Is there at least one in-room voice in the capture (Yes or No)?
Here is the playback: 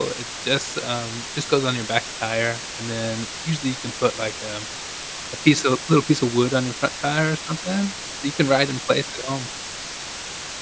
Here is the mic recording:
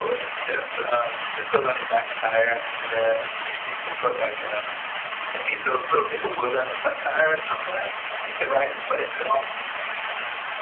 No